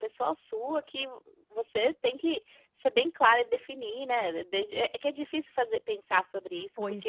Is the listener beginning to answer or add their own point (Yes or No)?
No